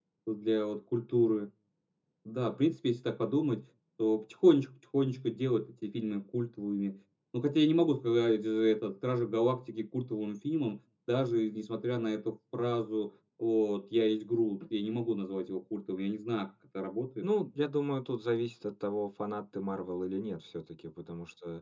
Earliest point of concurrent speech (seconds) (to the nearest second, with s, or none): none